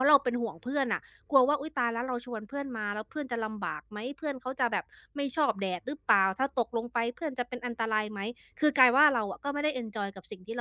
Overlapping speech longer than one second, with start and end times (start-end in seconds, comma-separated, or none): none